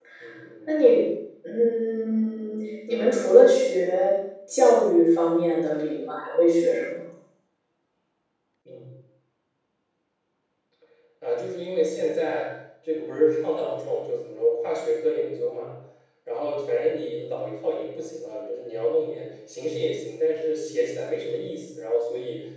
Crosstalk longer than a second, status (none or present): none